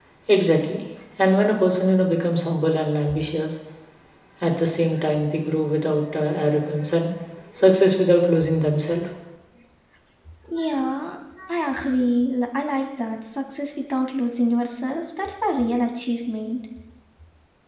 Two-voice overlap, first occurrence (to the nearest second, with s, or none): none